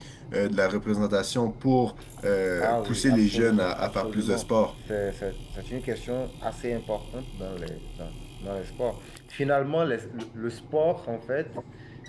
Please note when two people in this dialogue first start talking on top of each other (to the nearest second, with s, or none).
3 s